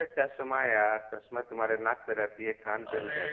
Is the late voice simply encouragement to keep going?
Yes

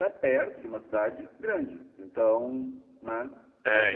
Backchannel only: Yes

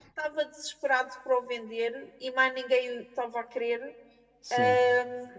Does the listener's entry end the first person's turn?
No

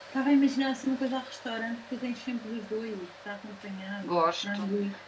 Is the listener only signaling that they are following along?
No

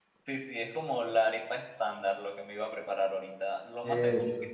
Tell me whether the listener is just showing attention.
Yes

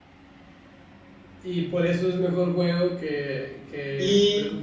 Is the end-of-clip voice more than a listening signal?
Yes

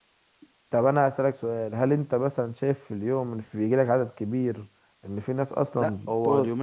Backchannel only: No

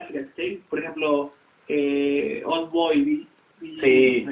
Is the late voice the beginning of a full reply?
No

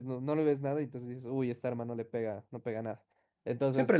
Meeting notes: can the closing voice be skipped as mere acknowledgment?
No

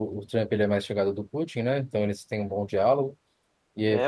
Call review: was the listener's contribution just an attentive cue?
No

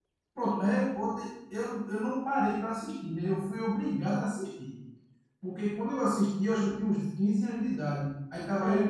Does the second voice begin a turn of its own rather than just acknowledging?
No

